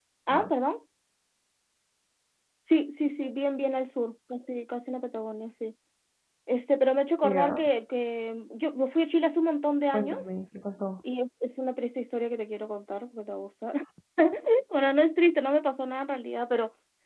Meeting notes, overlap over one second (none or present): none